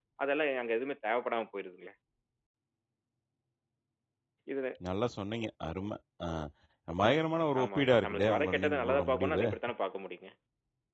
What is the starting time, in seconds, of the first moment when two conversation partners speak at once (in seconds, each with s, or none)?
7.6 s